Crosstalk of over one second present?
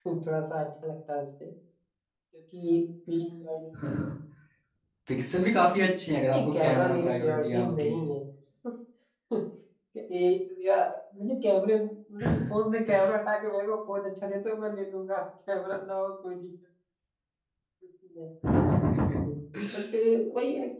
Yes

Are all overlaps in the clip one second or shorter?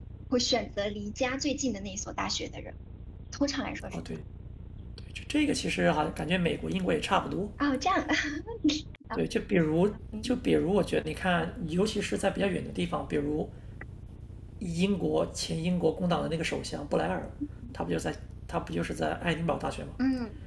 Yes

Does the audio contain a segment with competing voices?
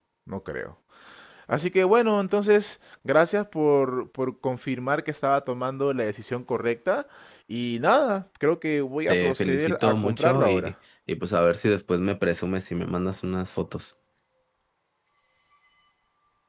Yes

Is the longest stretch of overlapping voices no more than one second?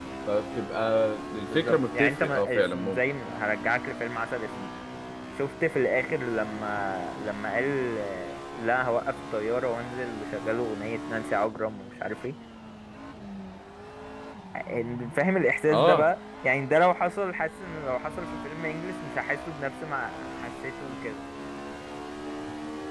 No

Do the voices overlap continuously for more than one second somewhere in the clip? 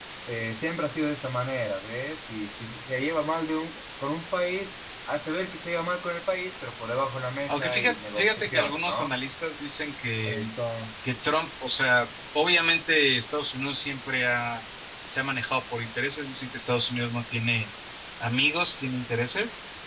Yes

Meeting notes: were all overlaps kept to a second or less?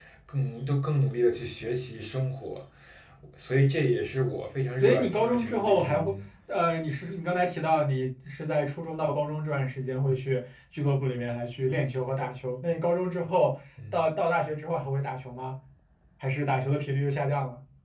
No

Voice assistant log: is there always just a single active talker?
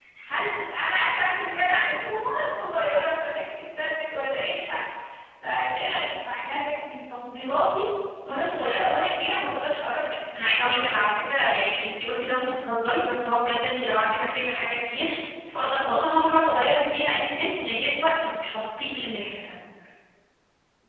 Yes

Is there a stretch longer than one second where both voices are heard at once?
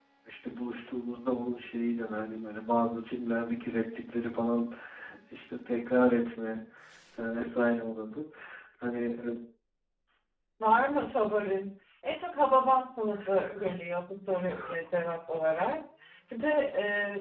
No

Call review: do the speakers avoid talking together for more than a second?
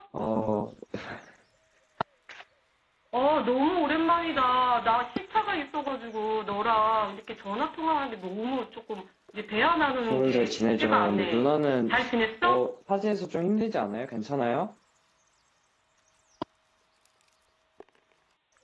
No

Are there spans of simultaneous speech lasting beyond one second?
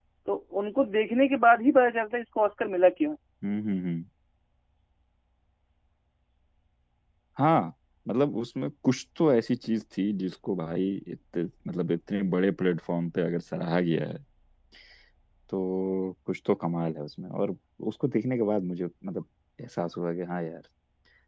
No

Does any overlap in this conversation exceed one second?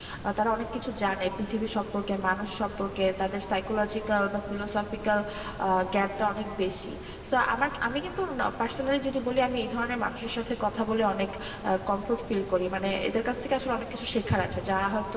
No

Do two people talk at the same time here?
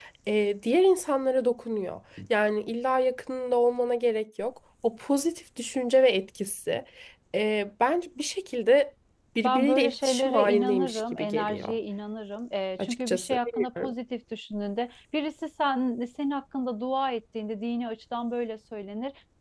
Yes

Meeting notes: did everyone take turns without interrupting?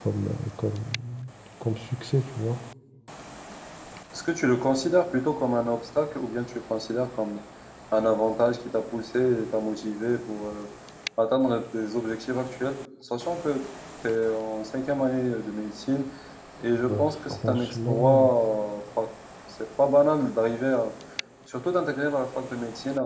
No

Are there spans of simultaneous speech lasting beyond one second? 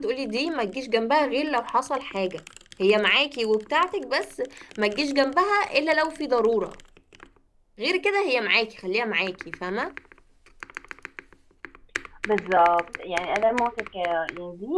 No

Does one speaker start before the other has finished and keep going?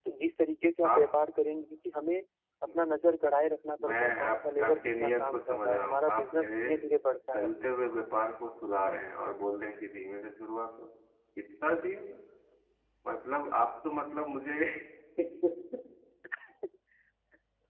Yes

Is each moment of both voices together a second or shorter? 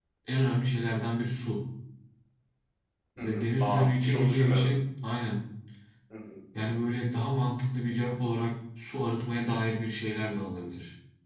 No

